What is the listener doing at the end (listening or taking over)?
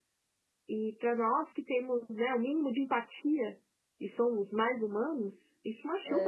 listening